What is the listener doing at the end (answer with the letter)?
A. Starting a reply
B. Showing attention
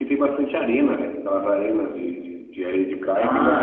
A